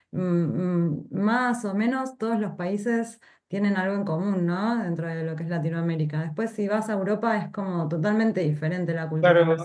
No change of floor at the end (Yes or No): No